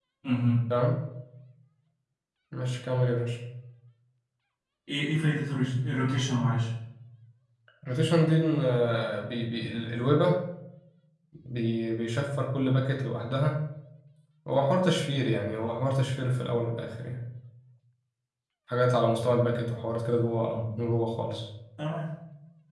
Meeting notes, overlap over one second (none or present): none